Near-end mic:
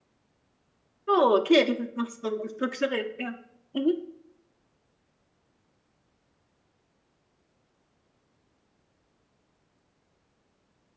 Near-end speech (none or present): present